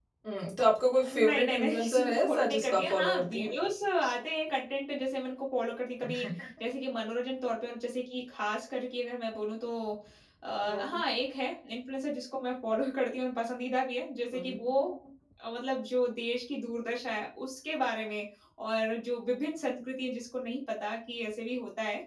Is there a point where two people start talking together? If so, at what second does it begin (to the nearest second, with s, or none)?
1 s